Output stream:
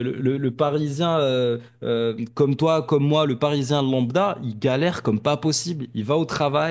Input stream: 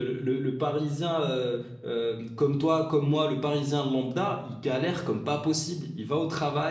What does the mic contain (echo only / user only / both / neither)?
echo only